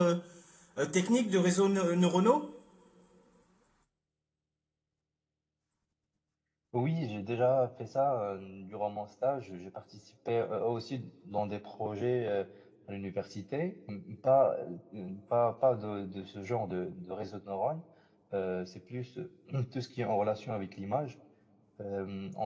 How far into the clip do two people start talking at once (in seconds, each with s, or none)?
none